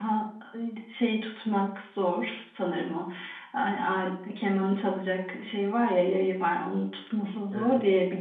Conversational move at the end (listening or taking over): listening